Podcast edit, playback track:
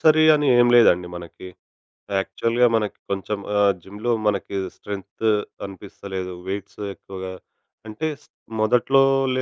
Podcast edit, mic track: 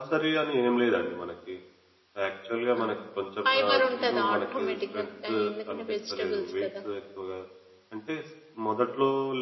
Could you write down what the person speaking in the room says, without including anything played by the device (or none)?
ఆ! ఫైబర్ ఉంటది ఆటోమేటిక్‌గా. ఆహ్, ఎందుకంటే వెజిటబుల్స్ కదా!